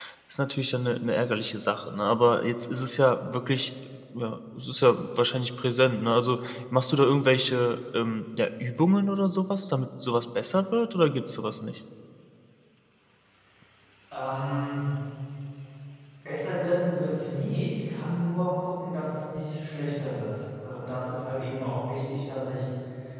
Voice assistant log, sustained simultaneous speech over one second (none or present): none